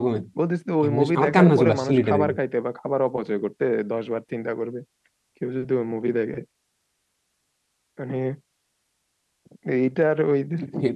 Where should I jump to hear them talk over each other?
1 s

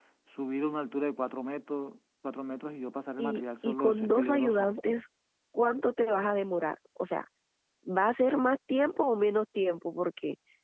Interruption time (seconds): 3 s

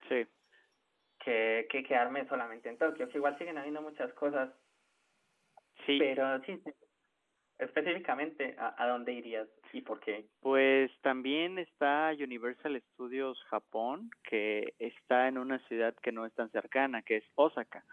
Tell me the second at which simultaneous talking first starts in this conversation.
none

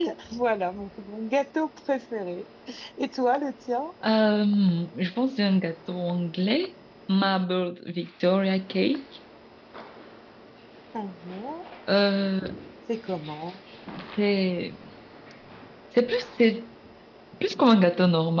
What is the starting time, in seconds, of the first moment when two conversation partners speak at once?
none

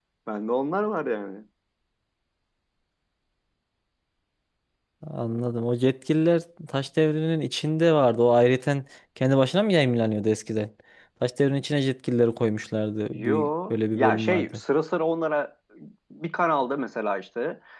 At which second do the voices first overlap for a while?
13 s

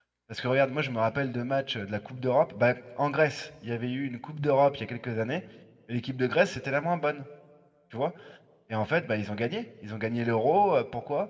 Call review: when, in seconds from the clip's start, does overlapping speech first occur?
none

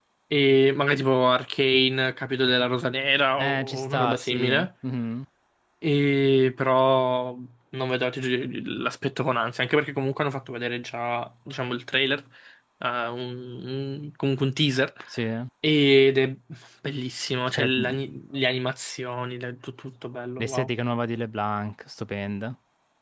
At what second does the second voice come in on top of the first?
3 s

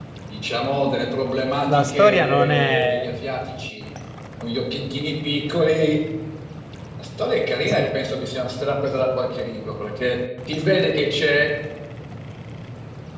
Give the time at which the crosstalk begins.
2 s

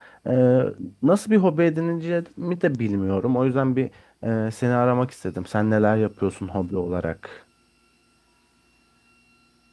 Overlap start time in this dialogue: none

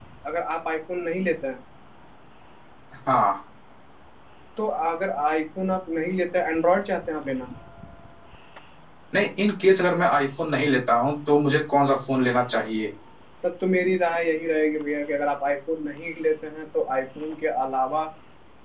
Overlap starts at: none

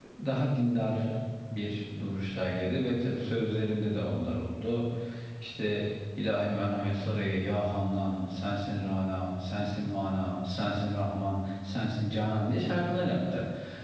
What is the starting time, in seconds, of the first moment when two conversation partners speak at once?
none

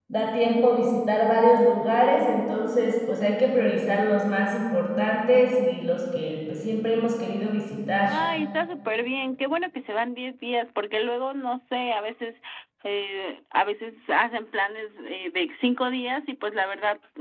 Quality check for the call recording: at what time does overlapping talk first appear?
none

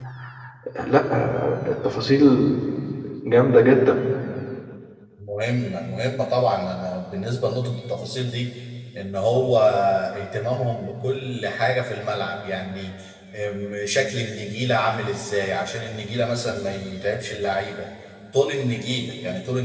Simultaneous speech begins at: none

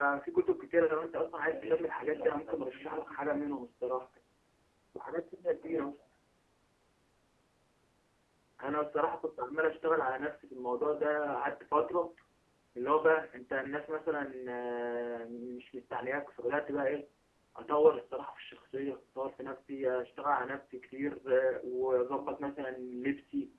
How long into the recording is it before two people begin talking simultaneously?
1 s

